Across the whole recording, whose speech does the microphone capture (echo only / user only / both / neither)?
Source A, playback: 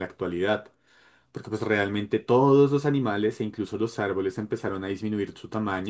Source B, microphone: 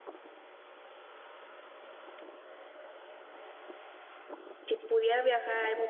user only